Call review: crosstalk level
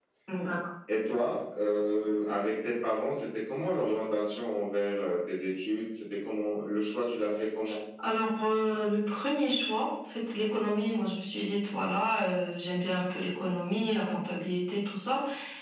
none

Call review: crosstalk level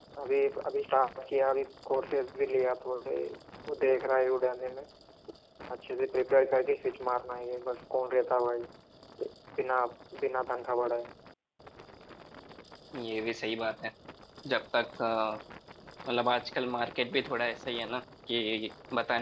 none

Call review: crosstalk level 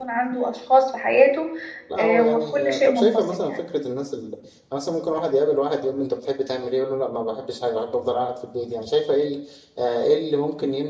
present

